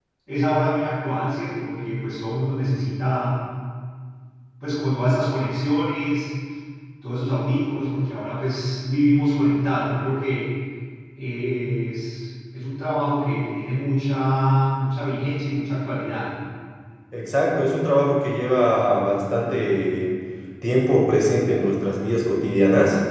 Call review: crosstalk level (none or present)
none